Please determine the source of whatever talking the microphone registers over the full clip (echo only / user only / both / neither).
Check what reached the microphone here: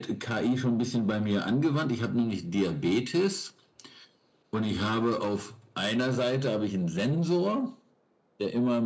echo only